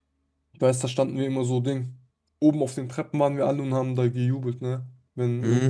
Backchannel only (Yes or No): Yes